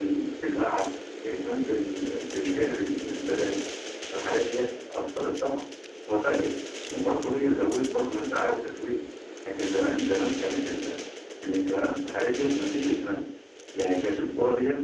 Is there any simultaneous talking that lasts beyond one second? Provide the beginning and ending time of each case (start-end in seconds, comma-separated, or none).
none